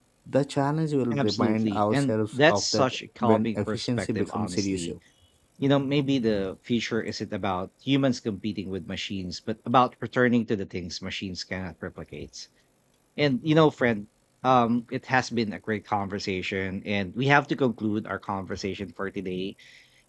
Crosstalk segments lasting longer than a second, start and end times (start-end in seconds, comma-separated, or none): 1.1-4.9